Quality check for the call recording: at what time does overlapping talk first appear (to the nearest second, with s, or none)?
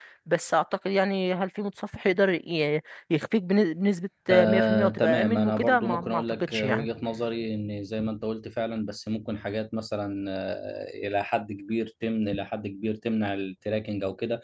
4 s